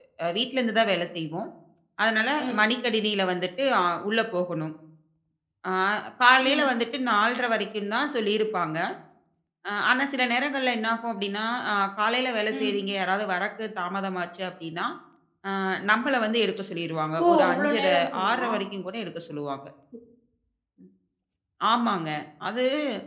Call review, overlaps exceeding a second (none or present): present